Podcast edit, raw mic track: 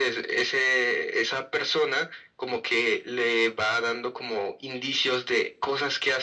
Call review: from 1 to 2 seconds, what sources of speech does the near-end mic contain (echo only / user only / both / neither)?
echo only